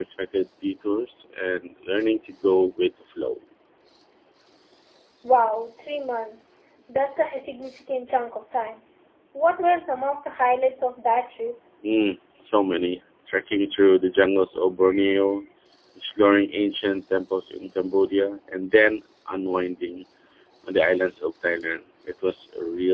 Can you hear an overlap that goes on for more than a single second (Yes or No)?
No